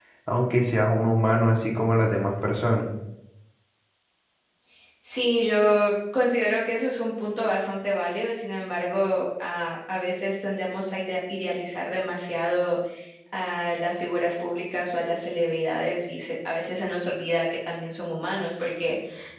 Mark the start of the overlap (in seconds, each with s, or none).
none